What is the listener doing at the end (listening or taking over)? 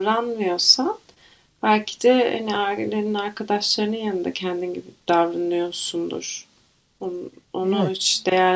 listening